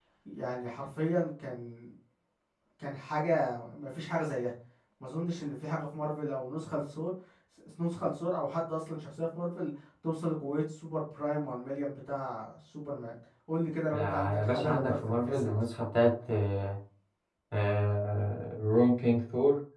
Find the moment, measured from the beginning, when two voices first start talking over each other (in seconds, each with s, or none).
13.9 s